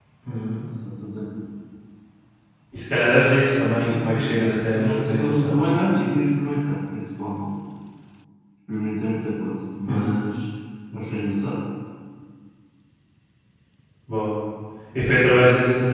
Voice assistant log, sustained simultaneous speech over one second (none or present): present